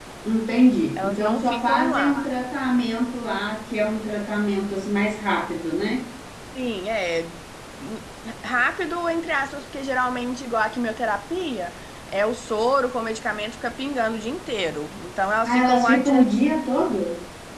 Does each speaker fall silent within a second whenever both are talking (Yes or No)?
No